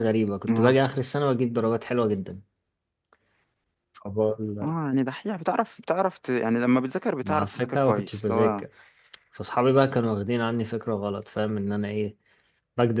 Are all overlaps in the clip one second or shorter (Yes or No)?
No